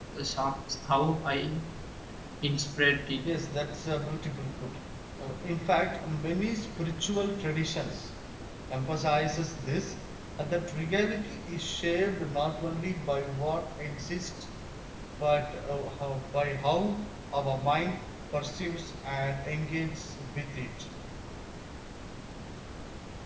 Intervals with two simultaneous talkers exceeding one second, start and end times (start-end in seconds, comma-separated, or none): none